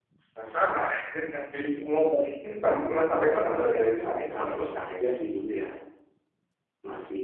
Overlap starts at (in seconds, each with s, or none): 2.7 s